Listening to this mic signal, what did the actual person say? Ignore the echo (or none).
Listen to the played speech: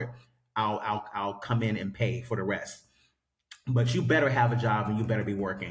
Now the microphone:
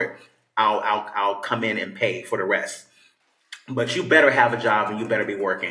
none